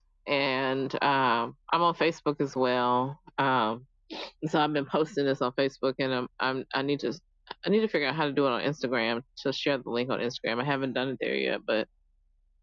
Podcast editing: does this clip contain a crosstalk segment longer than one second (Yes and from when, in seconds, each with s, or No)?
No